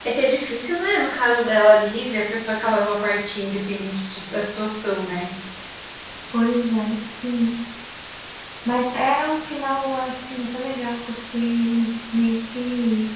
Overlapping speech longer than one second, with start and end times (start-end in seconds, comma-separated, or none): none